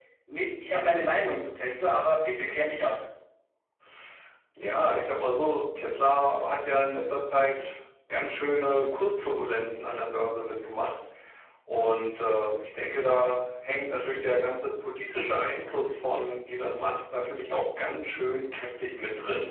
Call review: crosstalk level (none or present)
none